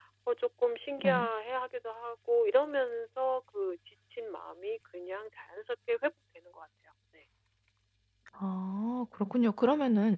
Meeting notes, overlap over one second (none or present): none